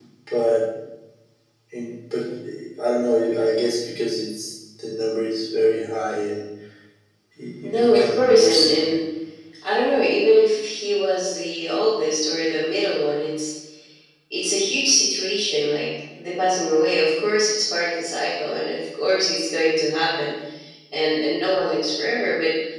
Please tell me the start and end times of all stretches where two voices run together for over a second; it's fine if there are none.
7.6-8.9

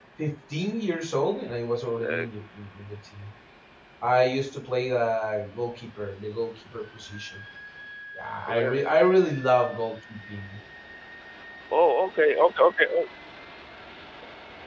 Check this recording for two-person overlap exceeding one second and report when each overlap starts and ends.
none

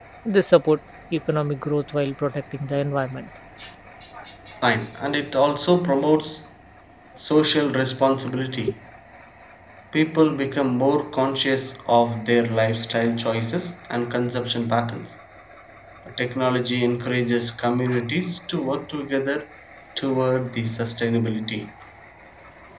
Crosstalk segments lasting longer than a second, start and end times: none

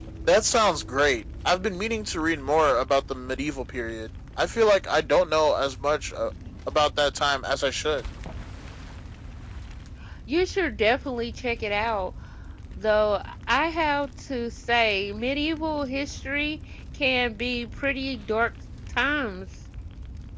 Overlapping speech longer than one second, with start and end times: none

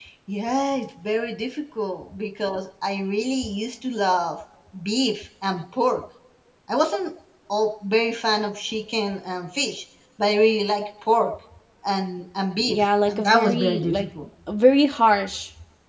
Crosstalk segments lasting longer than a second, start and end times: 12.7-14.1

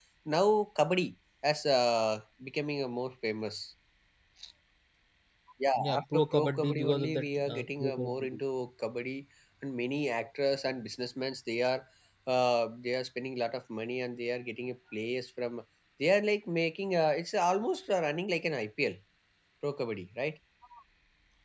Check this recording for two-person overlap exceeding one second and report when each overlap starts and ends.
5.8-8.4

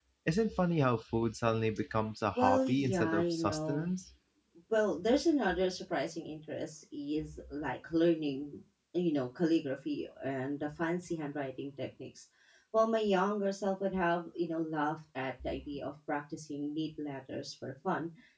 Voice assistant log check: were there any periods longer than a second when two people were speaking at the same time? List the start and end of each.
2.4-3.9

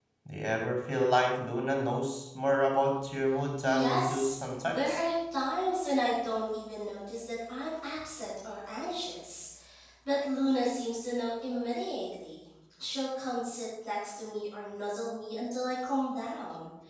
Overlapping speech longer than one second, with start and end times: 3.6-5.0

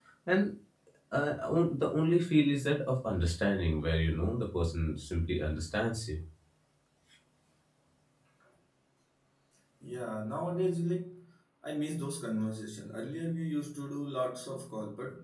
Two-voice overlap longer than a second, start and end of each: none

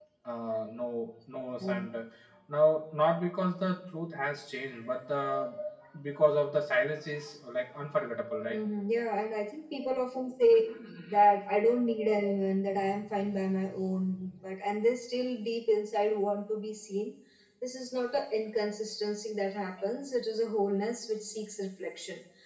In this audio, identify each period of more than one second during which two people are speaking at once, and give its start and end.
none

